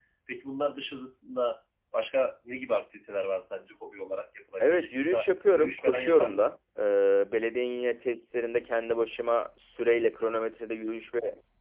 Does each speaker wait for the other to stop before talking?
No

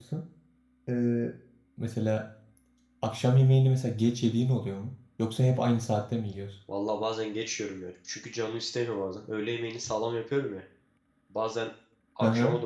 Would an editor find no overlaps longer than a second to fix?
Yes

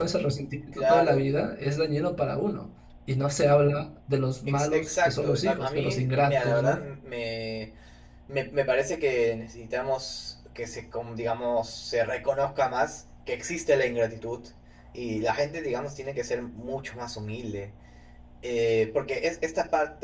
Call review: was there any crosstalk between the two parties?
Yes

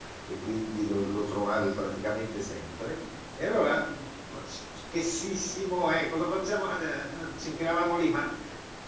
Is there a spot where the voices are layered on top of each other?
No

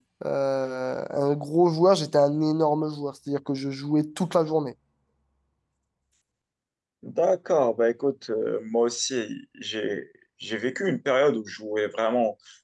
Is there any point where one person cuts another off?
No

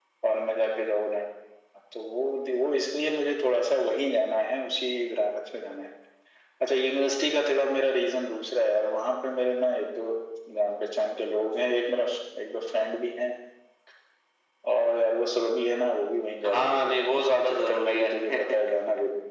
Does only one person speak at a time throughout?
No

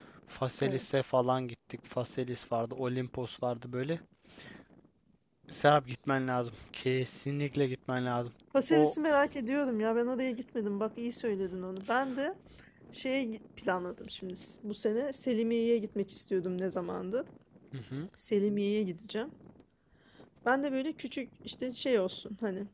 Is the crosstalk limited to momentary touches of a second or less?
Yes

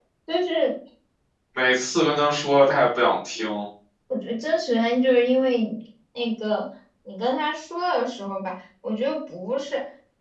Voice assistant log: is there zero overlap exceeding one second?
Yes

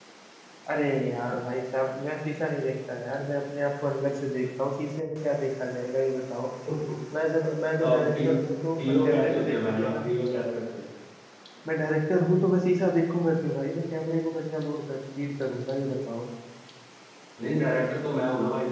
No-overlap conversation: No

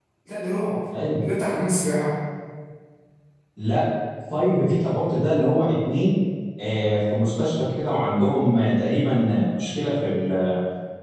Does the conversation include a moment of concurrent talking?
No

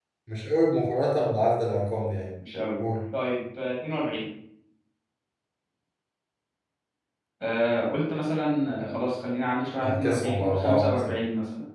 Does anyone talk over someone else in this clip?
Yes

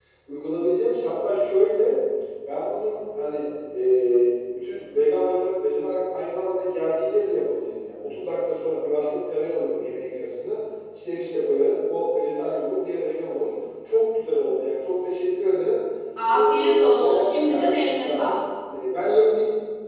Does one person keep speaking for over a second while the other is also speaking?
Yes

